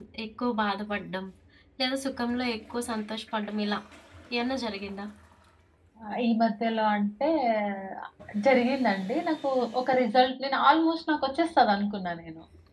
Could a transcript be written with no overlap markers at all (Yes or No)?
Yes